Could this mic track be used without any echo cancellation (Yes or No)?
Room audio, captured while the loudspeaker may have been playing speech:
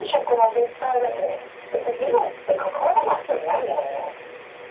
No